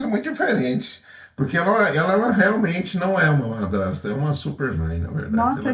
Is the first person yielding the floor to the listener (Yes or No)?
Yes